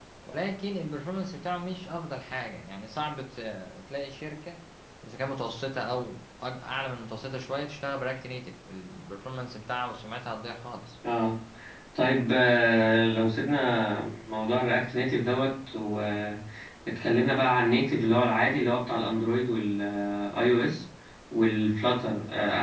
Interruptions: none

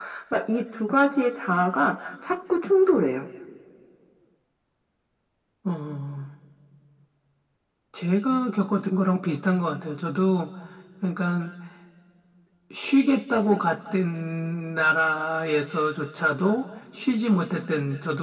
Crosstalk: none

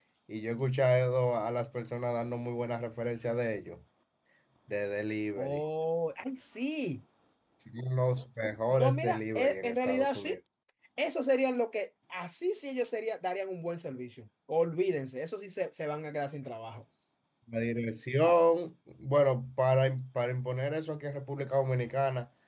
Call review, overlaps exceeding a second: present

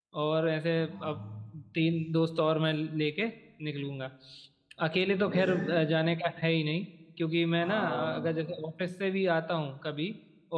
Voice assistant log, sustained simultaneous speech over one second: none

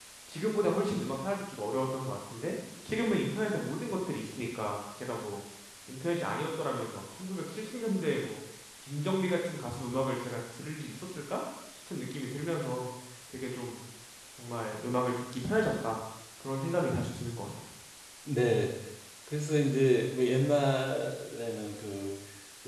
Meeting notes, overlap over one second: none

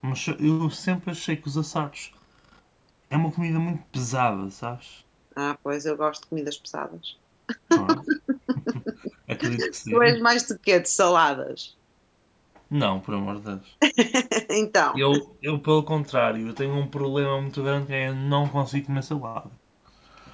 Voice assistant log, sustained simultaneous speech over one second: none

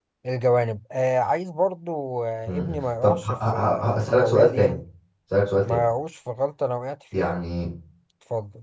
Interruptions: present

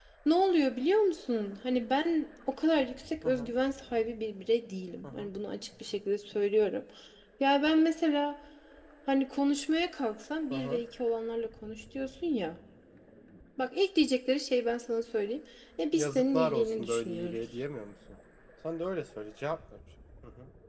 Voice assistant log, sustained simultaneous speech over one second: present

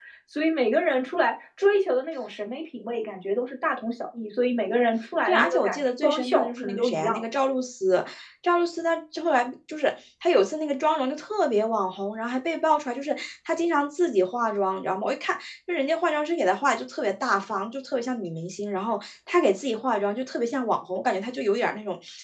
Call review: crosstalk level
present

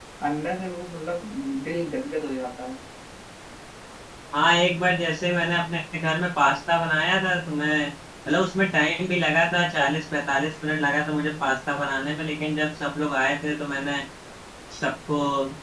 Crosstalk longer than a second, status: none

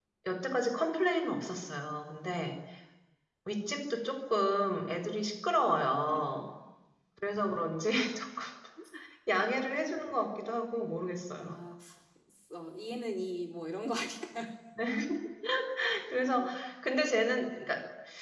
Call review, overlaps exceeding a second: none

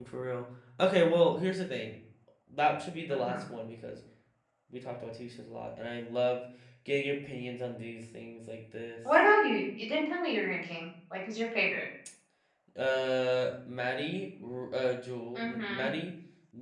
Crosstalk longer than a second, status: none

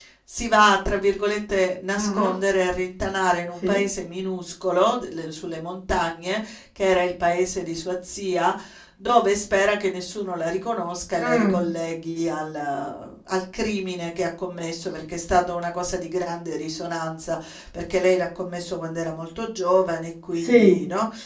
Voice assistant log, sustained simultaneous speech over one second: none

